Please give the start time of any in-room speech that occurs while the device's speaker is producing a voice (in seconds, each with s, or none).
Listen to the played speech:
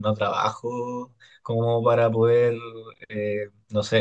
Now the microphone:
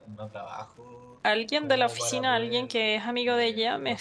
1.2 s